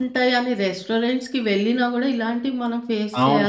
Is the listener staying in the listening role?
No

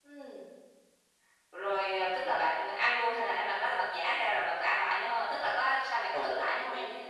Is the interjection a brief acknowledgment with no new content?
No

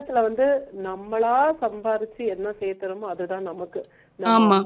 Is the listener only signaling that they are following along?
Yes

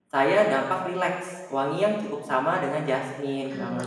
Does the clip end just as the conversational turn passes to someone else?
Yes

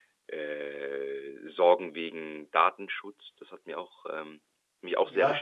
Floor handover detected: Yes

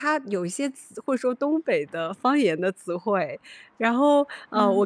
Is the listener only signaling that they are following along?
Yes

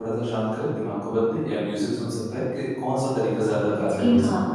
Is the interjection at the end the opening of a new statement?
Yes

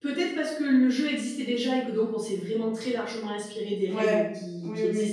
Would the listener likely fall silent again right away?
No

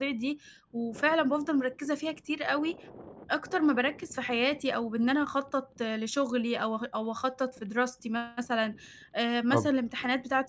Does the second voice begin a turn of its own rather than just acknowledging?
No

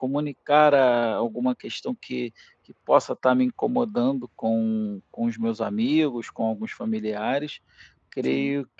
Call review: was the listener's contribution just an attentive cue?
Yes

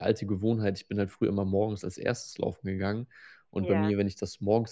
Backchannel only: Yes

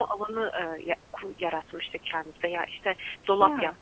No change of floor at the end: Yes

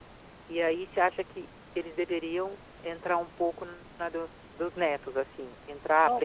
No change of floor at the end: No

